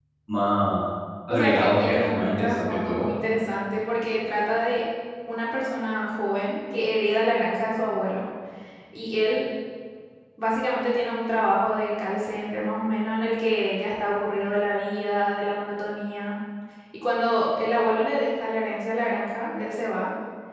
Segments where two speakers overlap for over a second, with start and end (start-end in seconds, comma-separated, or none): 1.3-3.0